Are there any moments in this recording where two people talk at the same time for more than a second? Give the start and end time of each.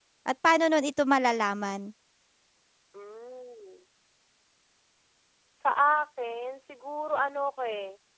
none

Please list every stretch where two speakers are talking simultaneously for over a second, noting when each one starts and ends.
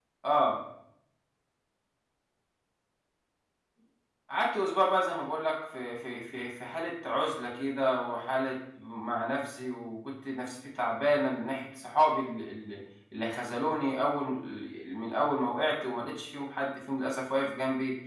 none

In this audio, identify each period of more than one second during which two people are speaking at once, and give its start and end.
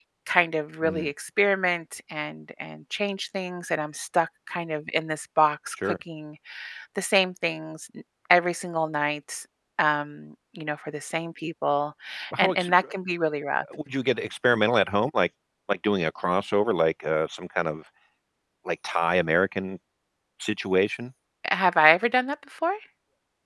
none

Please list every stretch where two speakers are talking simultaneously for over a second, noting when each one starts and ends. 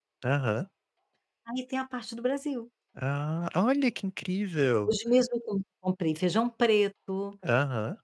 none

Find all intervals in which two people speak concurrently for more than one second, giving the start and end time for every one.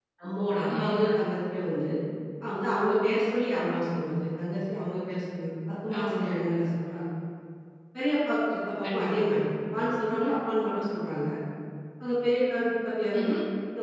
none

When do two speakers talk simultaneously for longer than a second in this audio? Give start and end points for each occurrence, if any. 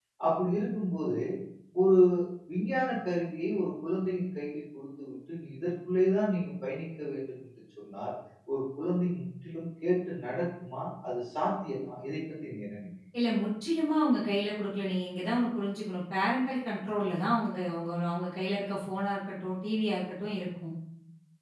none

